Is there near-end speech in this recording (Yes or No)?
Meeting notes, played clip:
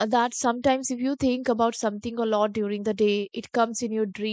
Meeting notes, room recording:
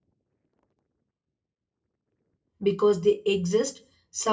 Yes